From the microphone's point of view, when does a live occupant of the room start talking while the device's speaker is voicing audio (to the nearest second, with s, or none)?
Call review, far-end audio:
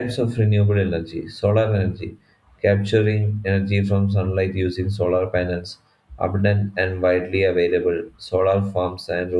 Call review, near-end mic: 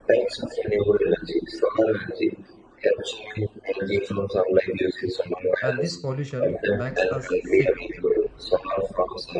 6 s